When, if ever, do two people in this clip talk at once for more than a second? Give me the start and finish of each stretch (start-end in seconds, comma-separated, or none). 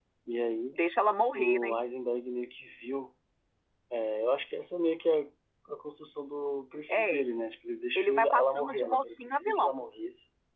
8.0-9.8